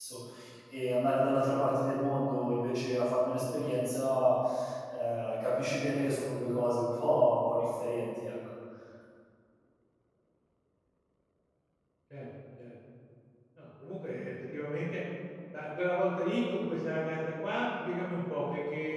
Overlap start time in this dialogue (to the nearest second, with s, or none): none